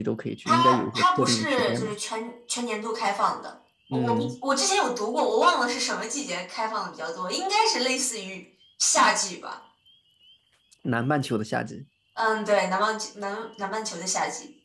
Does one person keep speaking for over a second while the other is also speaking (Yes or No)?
Yes